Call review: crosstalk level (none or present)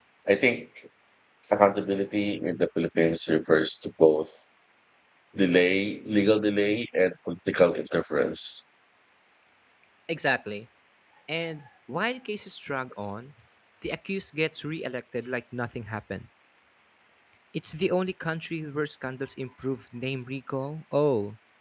none